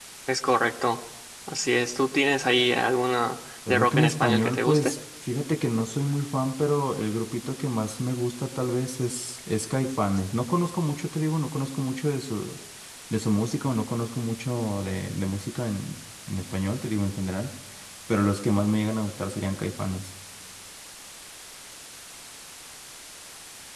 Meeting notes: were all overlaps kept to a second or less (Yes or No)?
No